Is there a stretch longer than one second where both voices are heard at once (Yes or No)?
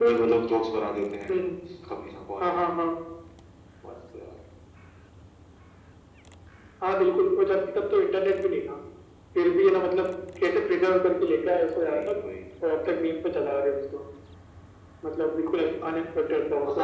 No